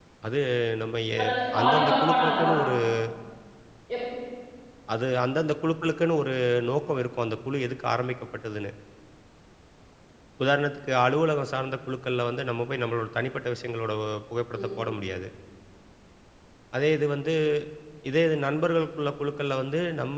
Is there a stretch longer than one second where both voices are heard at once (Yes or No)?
Yes